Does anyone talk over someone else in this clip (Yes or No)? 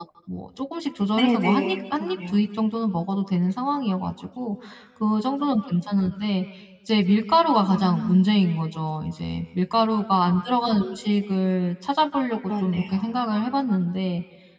Yes